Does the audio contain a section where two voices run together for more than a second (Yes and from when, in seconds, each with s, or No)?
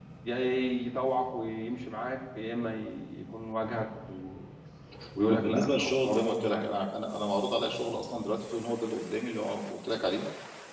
Yes, from 5.3 s